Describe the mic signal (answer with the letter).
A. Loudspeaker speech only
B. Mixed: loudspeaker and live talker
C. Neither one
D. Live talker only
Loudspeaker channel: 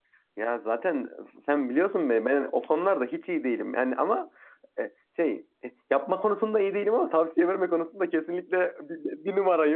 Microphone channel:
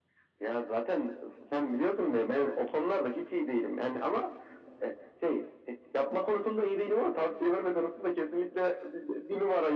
A